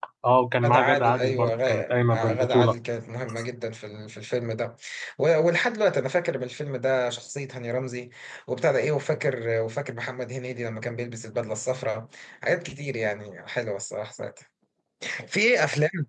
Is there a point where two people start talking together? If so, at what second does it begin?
0.6 s

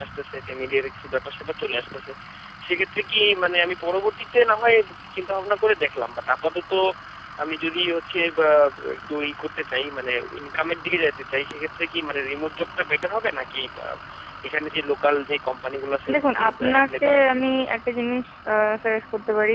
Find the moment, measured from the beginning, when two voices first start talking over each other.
16.1 s

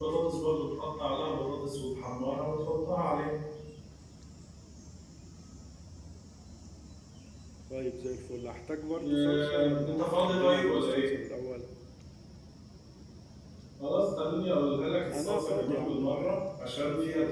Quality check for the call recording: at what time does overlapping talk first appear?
9.1 s

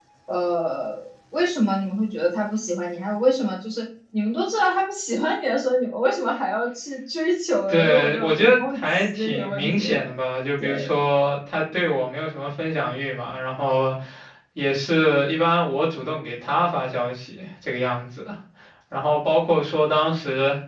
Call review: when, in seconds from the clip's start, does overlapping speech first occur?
7.7 s

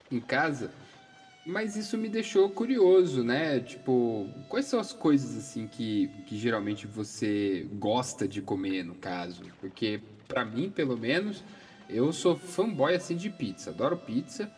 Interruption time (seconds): none

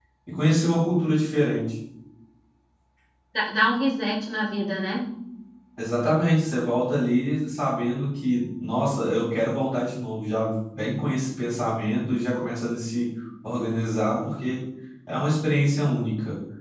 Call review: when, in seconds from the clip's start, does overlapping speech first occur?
none

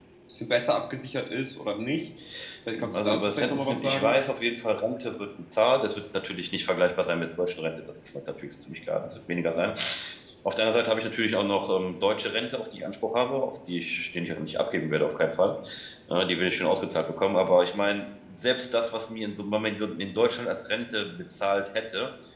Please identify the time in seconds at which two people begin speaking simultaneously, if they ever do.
2.9 s

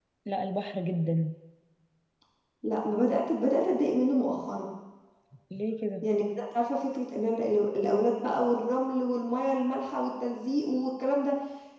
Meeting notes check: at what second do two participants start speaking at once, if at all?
none

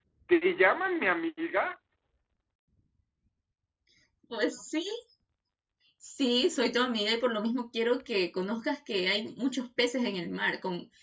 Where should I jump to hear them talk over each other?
none

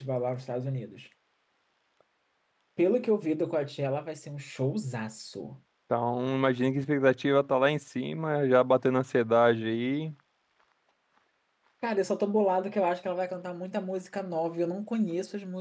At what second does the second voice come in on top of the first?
none

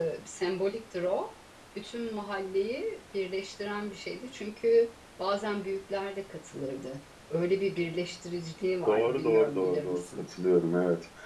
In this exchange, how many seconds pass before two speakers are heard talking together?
8.8 s

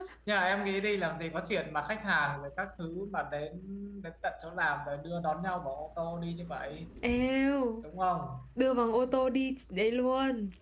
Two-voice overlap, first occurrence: none

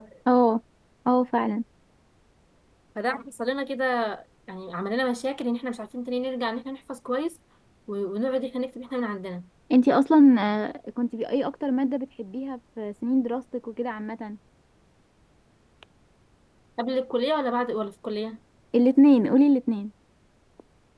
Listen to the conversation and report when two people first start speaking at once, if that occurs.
none

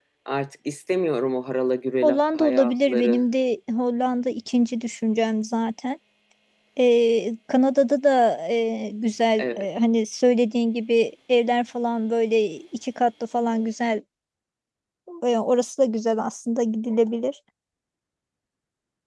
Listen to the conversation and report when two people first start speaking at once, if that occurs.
2.0 s

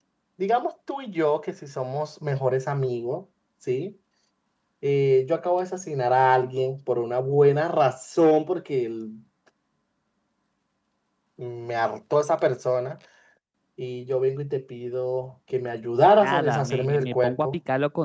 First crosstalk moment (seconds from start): 16.2 s

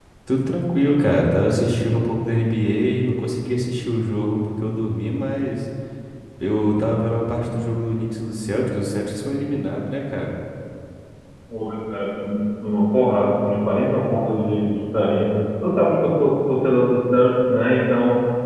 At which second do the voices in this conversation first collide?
none

